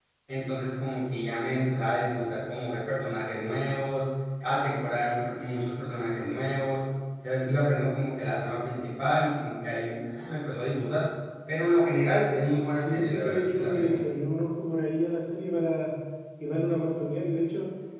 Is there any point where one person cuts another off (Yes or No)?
Yes